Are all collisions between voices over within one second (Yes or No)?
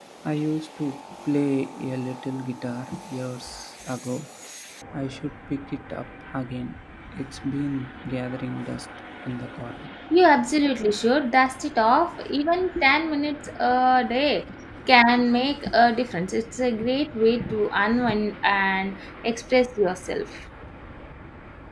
Yes